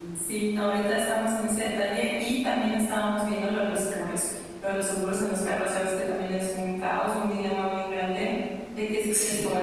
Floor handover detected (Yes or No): No